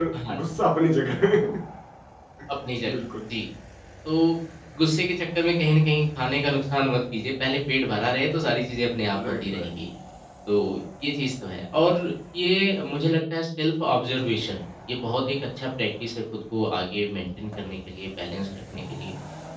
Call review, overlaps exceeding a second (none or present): none